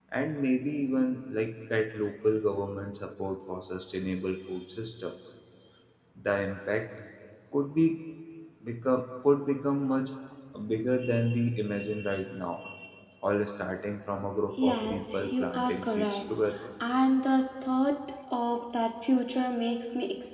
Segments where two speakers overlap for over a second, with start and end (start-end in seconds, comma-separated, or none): 14.6-16.2